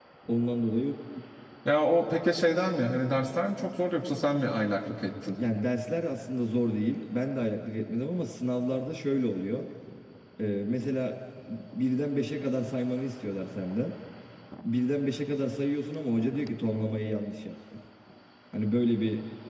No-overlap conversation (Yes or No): Yes